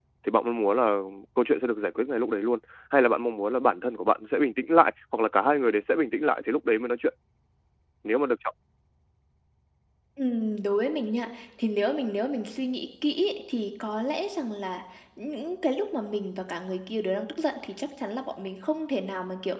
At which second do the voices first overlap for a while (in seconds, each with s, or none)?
none